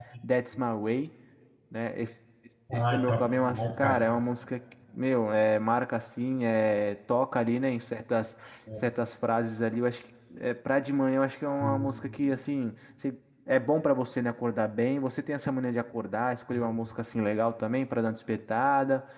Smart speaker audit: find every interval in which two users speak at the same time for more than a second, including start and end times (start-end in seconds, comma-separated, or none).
2.8-4.0